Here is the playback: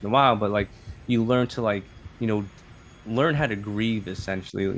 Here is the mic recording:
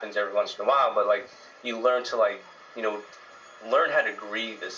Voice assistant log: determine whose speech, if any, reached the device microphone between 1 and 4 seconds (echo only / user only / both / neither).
echo only